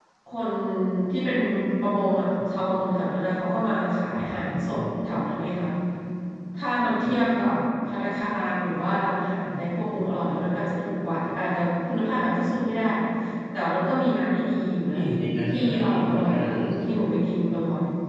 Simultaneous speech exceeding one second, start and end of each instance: 15.5-16.9

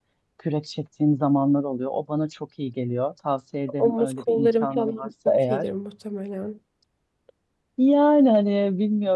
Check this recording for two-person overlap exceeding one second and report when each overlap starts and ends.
3.8-5.7

